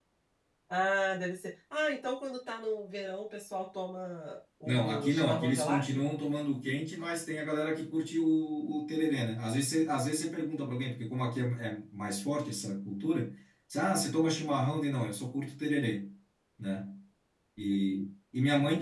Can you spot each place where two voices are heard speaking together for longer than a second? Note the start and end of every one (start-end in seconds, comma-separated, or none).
4.6-6.0